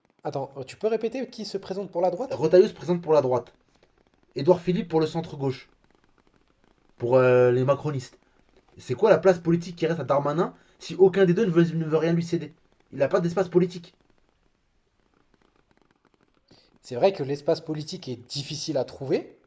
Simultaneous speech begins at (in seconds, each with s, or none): none